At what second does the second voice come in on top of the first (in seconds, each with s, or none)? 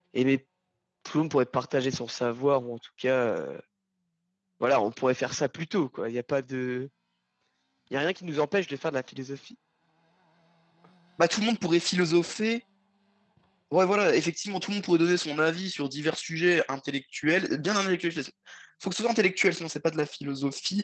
none